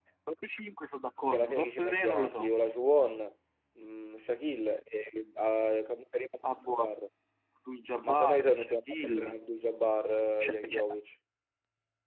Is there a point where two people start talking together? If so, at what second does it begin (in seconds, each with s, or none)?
1.2 s